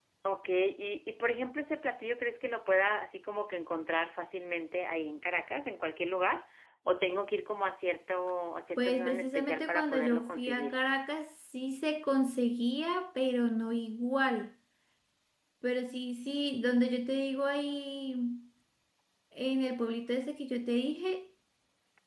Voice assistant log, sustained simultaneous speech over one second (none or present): present